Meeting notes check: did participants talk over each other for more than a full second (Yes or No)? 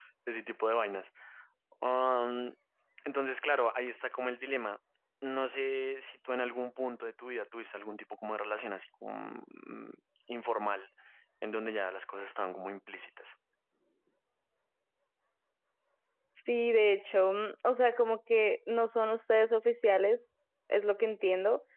No